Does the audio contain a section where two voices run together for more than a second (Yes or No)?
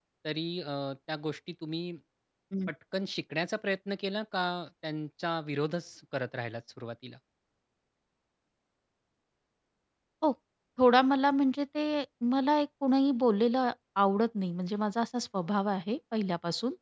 No